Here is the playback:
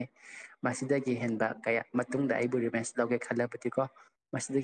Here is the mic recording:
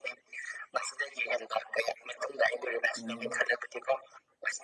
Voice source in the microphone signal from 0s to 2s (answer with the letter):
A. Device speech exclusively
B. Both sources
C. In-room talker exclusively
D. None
A